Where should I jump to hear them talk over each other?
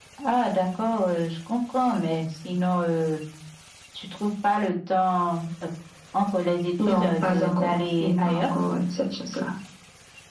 6.9 s

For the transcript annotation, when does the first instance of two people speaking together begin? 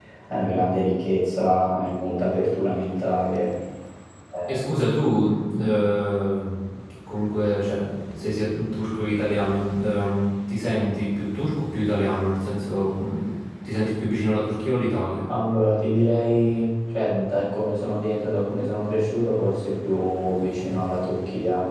none

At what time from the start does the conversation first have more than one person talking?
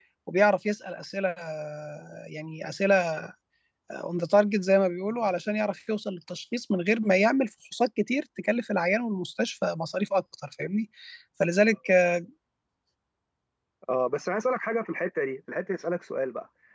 none

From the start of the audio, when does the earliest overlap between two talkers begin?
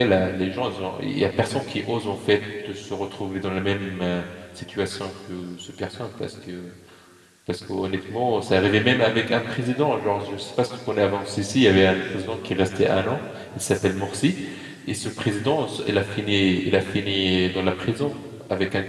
none

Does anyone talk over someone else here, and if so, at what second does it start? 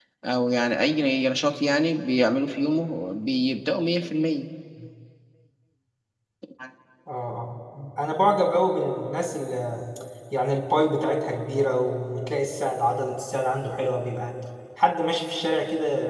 none

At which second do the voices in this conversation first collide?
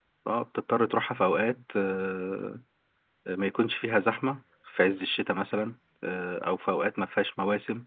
none

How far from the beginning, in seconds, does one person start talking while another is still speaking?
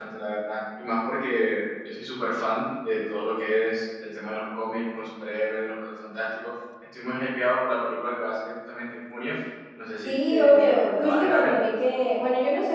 10.1 s

